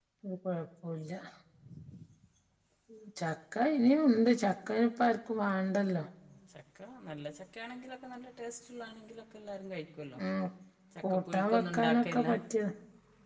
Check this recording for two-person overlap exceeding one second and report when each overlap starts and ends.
11.0-12.2

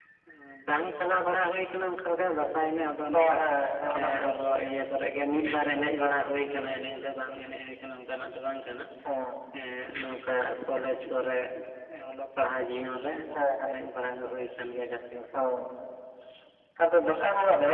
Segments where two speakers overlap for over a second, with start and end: none

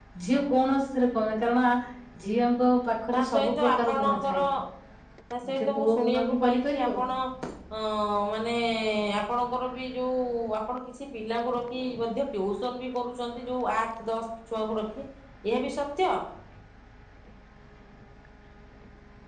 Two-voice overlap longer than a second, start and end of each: 3.1-4.4, 5.6-6.9

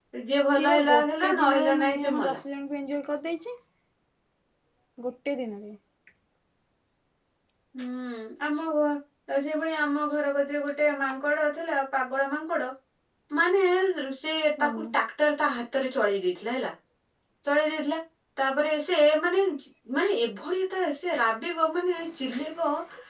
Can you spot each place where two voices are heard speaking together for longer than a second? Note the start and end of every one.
0.6-2.4

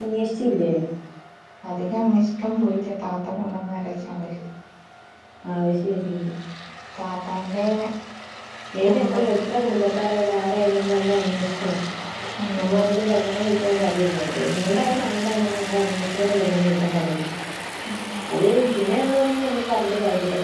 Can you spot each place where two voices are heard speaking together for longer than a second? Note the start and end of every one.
none

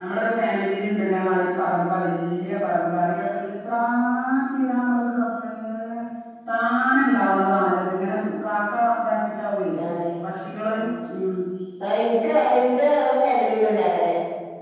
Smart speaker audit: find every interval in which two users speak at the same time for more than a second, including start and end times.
none

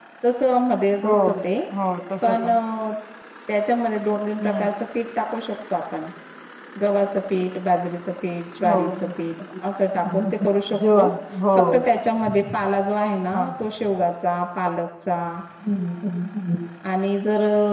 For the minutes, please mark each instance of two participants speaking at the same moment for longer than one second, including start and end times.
none

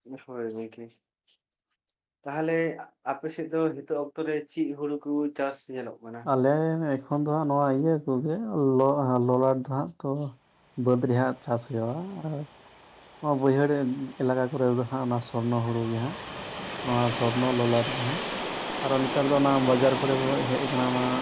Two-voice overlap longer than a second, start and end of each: none

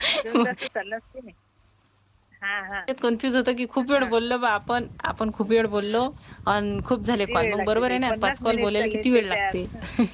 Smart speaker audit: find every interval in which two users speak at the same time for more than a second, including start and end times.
7.3-9.5

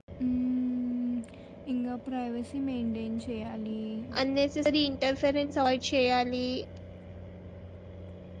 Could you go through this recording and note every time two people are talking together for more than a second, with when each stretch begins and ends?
none

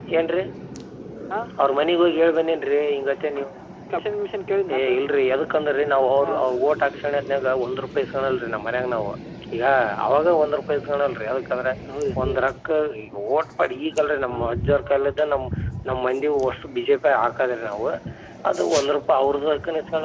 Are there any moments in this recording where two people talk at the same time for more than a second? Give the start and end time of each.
none

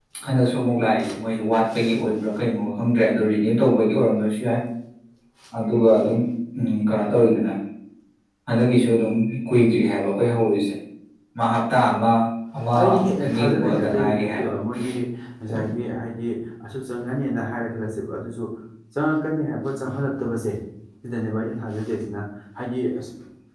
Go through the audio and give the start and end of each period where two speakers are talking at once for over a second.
13.2-14.5

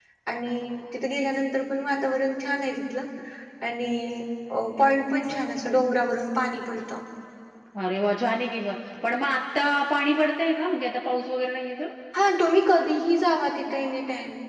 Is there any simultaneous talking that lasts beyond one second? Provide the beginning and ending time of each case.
none

